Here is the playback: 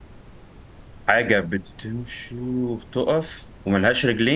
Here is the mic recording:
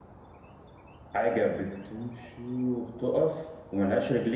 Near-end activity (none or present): none